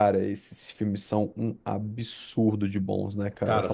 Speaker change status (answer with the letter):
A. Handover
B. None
A